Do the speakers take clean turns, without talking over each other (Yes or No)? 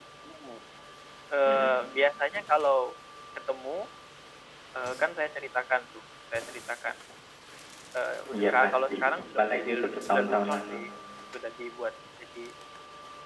No